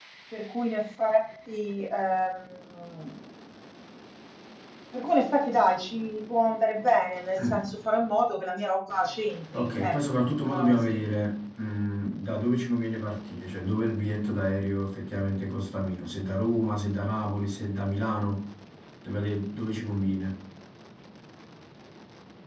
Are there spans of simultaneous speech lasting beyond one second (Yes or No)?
Yes